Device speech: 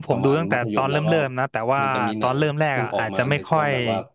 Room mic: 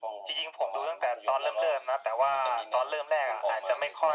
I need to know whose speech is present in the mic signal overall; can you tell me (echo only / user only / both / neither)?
echo only